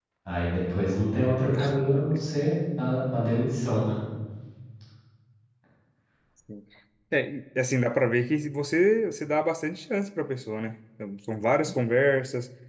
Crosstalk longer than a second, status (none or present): none